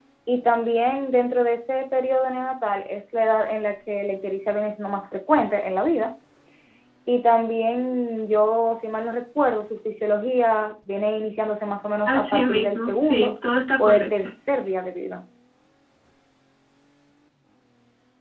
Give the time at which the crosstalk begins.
12.1 s

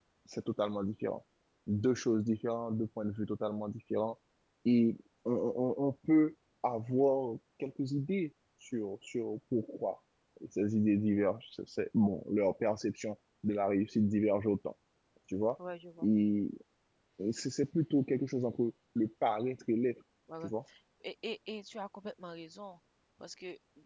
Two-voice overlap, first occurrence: none

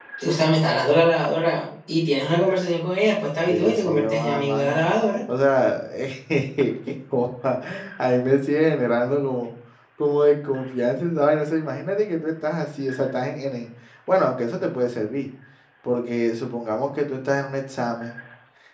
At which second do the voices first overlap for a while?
3.5 s

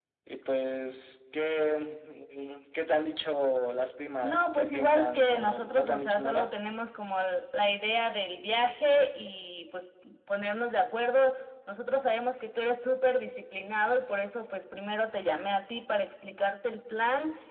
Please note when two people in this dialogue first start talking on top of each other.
4.2 s

